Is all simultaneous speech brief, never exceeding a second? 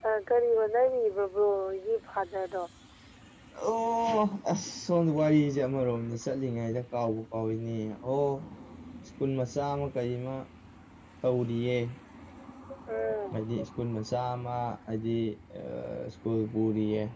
Yes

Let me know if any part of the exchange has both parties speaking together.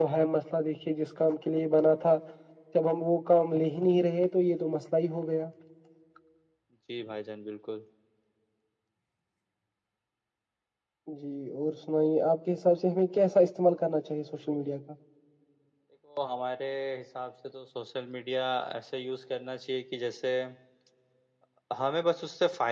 No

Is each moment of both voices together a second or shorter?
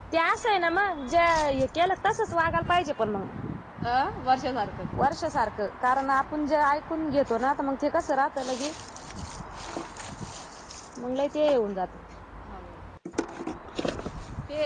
Yes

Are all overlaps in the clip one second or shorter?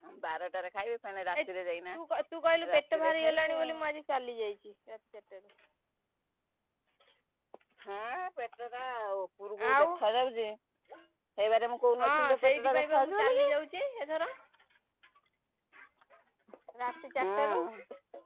No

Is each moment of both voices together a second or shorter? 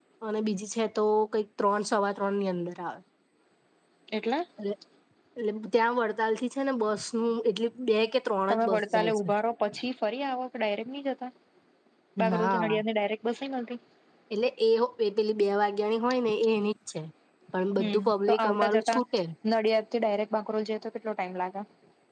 No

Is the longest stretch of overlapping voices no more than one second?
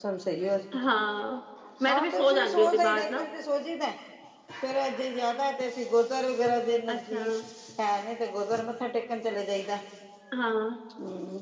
No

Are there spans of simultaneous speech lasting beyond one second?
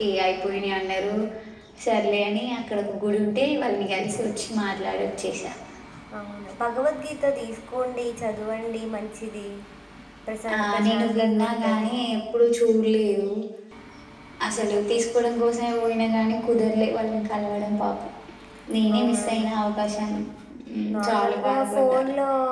Yes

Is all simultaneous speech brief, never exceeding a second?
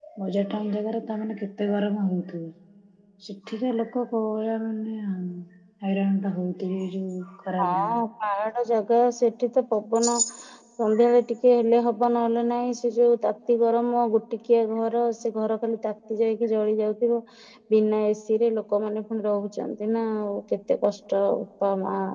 Yes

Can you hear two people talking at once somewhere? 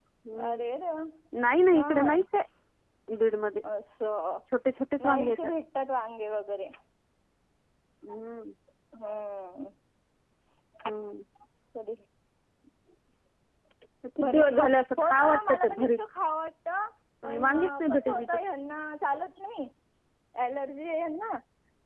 Yes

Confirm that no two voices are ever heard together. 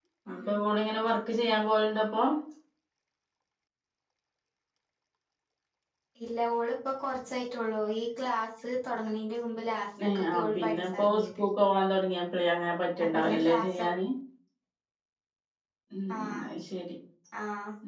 No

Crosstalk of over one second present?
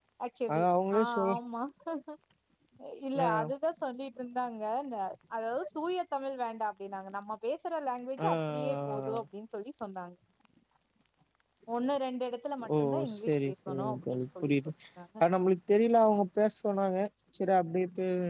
Yes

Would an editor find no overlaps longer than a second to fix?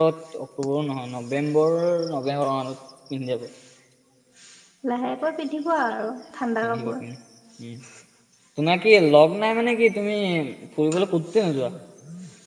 Yes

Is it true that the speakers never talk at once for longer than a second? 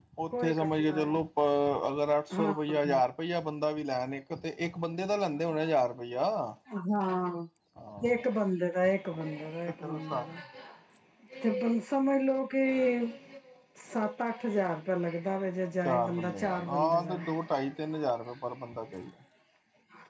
No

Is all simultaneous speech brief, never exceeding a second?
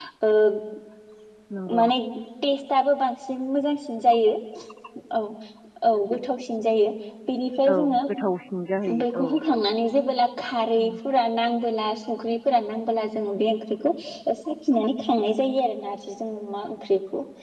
Yes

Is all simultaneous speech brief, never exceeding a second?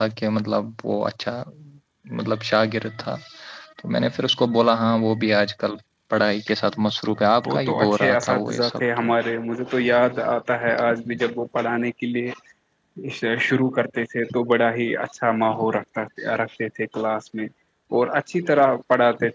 No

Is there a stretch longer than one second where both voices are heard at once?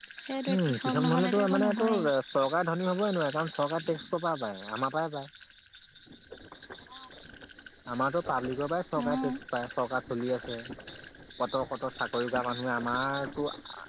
Yes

